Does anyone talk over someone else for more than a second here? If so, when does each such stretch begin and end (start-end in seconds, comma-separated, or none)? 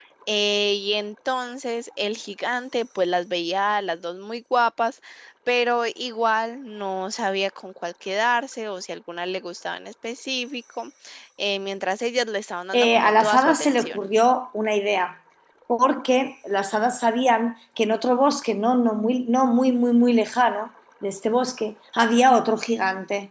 12.7-14.0